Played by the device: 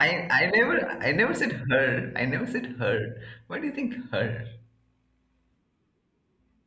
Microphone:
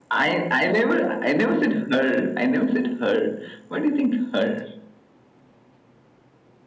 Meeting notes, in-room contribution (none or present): none